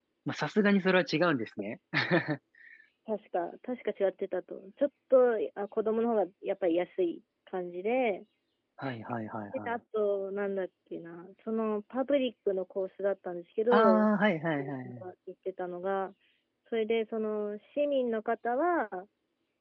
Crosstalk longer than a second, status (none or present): none